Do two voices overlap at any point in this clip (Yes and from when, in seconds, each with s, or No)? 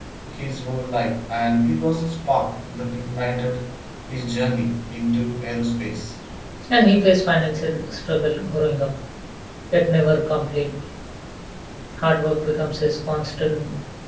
No